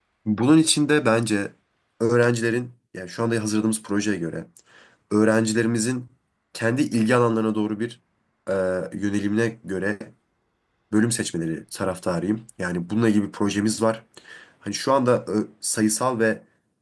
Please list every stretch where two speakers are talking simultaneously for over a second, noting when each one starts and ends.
none

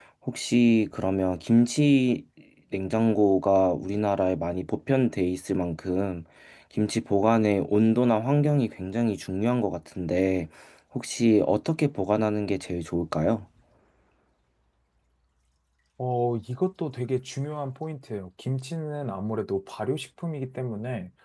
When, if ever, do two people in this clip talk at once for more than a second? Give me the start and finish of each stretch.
none

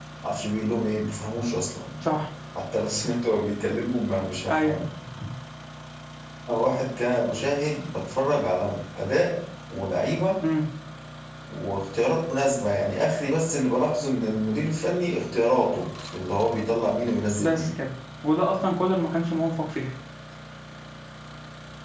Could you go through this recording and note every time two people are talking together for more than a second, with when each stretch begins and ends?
none

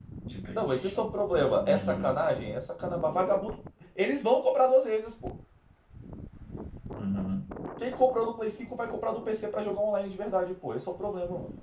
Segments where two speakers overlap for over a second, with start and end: 0.6-2.1

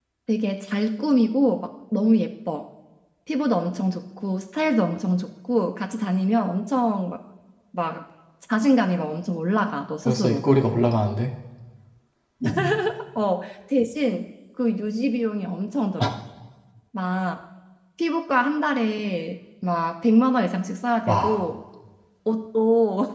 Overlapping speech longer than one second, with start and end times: none

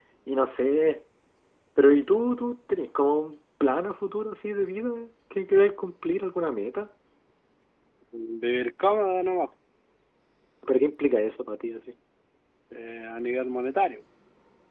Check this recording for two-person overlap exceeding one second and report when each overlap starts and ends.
none

